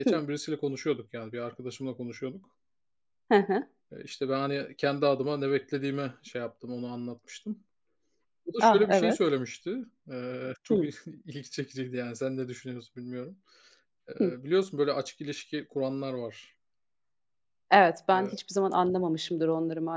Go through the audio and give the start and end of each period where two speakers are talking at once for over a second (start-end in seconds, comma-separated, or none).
none